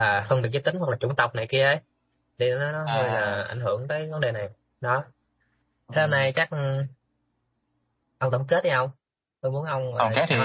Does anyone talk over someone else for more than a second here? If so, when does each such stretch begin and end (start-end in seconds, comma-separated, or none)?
none